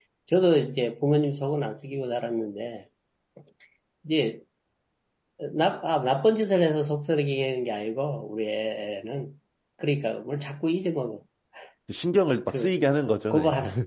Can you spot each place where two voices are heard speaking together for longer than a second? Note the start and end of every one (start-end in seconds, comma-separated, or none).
none